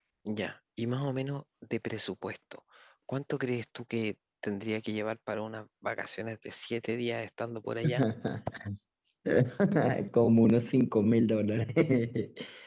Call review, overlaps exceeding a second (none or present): none